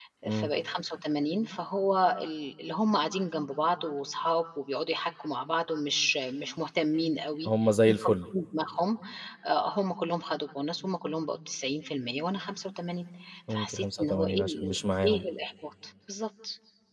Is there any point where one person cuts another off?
Yes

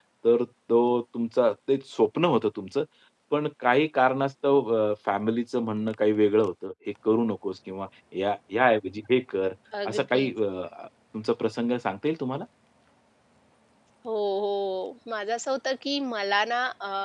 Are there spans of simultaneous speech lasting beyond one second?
No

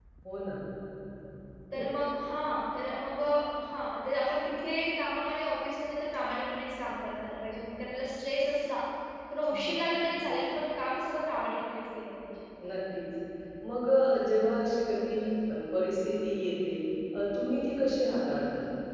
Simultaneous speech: No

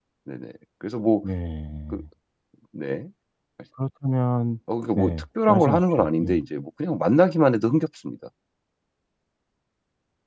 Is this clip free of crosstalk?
No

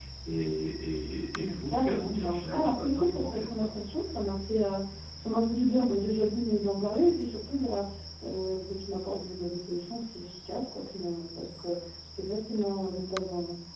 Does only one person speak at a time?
No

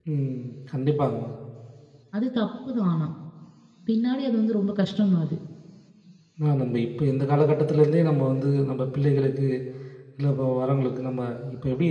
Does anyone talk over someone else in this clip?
No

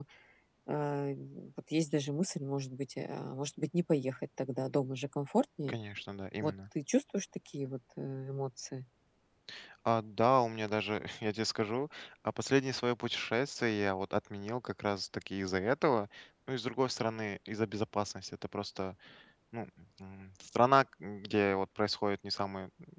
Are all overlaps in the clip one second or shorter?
Yes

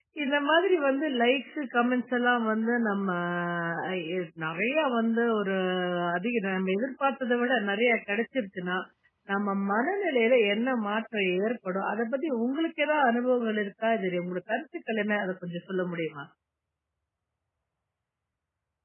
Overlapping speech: No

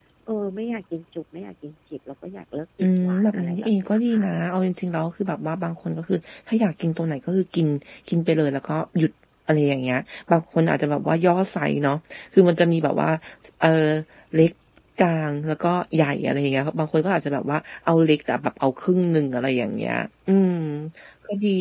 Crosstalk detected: Yes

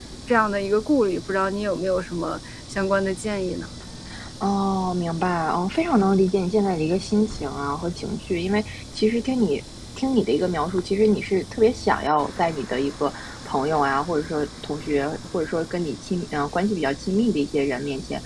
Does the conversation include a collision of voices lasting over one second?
No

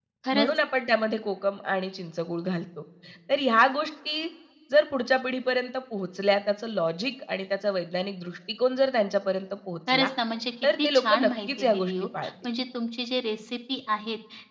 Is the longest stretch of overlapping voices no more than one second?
No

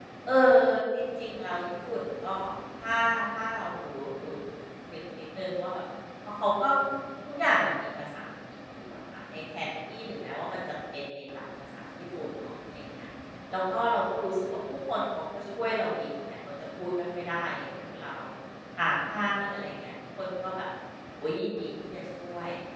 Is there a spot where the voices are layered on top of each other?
No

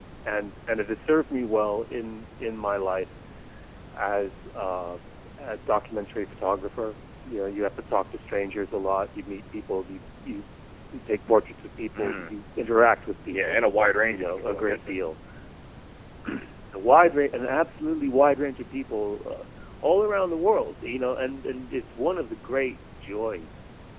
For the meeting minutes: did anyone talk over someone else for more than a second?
Yes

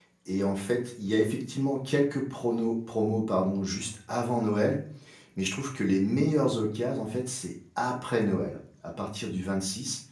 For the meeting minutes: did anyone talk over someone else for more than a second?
No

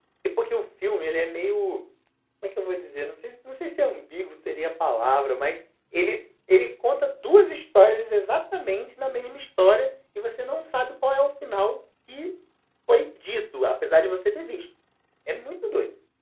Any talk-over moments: No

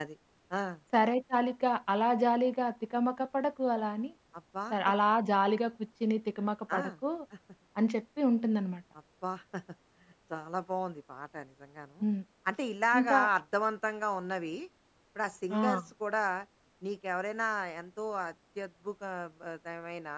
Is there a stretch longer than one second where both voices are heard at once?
No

